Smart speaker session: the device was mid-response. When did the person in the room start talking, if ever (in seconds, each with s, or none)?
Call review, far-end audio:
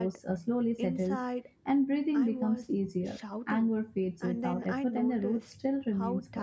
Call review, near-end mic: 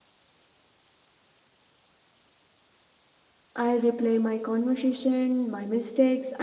3.5 s